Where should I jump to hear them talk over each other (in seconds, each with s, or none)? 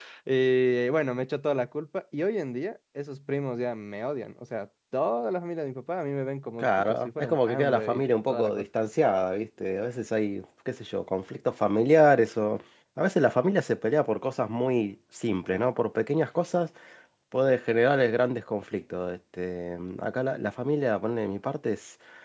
6.6 s